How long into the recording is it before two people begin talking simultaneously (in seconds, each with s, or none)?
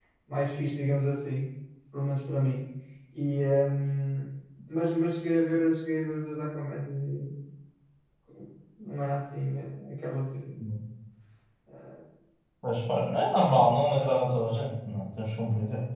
none